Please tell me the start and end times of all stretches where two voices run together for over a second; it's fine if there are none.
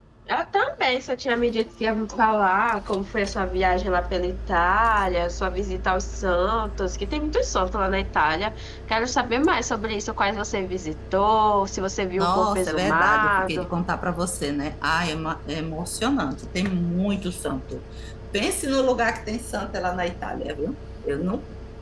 12.2-13.7

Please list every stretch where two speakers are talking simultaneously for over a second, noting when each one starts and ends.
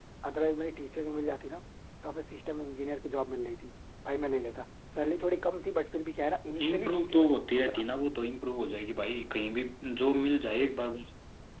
6.6-7.8

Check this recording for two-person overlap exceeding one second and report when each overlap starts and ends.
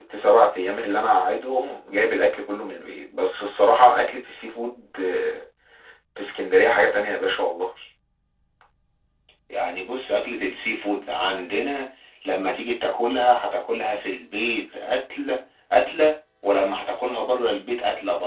none

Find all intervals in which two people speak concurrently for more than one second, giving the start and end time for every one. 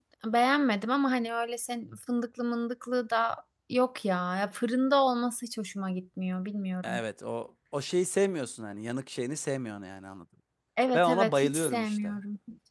10.9-12.2

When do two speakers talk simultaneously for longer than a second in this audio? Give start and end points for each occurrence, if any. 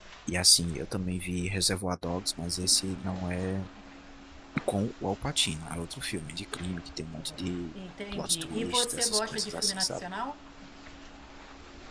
8.1-10.0

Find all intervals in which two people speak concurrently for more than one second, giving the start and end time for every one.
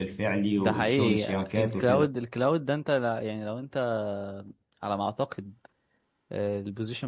0.6-2.1

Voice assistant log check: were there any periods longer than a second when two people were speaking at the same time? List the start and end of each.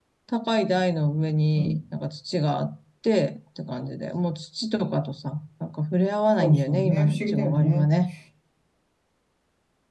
6.4-7.9

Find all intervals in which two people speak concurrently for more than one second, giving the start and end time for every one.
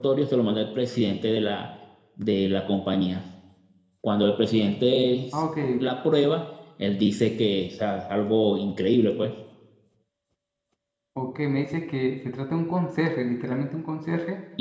none

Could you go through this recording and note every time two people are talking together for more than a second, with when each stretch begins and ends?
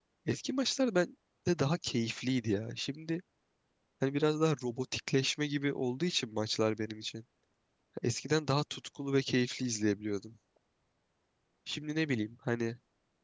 none

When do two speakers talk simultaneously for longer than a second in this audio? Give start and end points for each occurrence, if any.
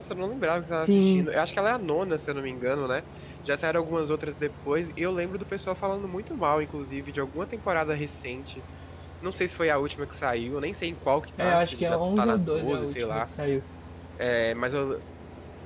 11.4-13.2

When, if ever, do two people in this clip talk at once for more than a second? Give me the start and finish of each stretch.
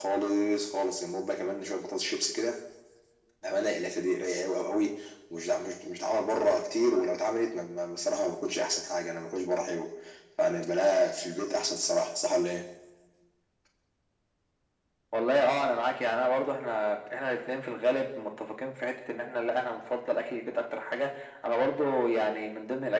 none

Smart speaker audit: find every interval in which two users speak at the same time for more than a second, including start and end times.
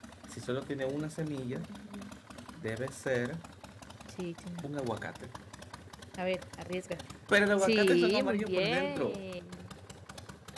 7.6-9.2

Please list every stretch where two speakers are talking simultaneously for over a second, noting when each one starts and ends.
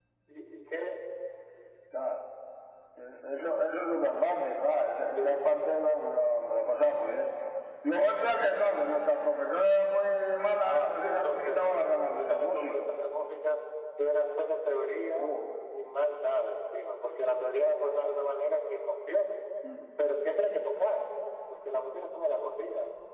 10.6-12.9

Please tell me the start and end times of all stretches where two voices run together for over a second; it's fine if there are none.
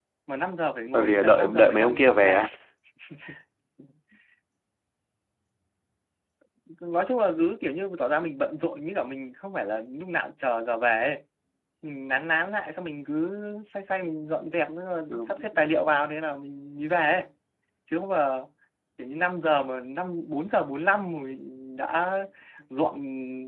0.9-2.4

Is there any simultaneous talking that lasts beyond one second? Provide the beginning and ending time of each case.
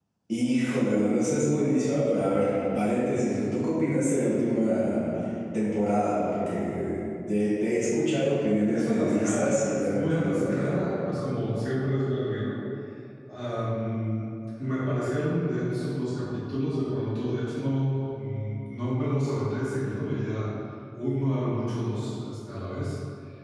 8.7-10.7

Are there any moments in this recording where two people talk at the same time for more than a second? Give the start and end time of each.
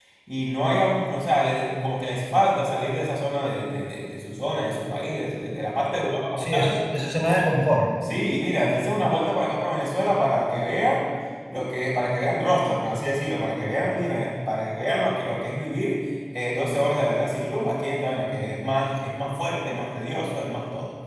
none

